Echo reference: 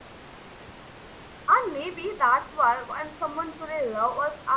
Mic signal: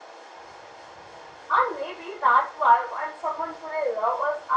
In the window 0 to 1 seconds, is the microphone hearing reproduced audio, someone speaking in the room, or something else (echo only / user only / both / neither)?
neither